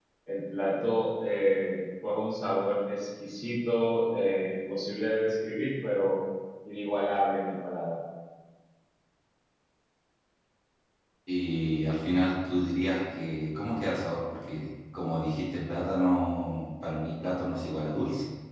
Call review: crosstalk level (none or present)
none